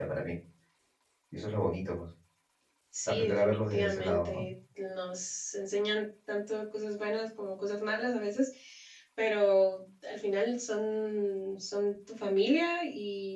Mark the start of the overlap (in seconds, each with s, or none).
3.1 s